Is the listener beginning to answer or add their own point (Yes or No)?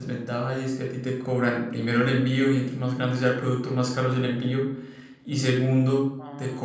No